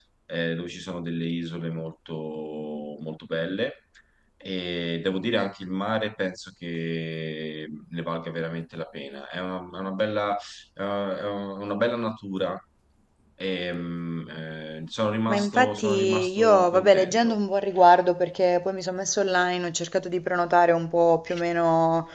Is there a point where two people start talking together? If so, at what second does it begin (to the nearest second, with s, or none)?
15 s